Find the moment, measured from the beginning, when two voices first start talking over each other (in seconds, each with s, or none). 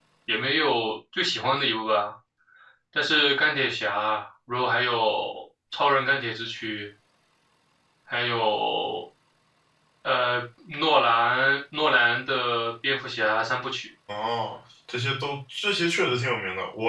none